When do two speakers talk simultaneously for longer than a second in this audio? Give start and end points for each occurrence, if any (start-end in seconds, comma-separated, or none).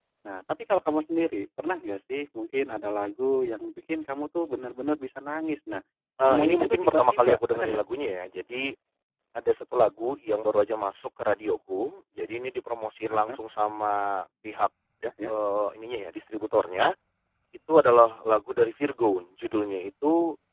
6.2-7.8